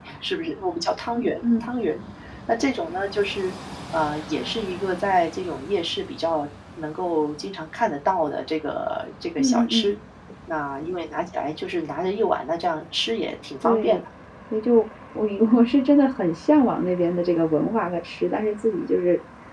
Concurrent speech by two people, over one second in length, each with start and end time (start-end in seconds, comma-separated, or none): none